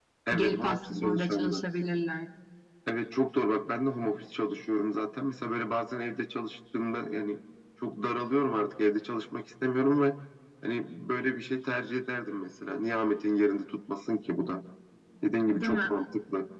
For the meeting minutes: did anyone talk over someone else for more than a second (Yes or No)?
Yes